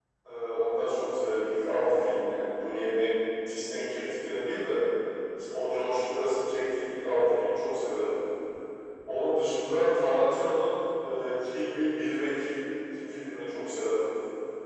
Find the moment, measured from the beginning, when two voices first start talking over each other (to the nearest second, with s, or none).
none